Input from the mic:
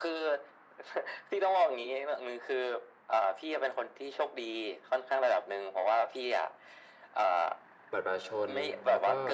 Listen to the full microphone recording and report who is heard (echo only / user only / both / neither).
both